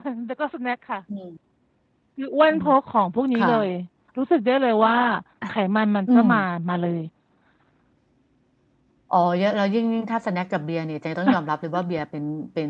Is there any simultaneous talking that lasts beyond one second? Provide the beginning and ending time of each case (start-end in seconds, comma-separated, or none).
none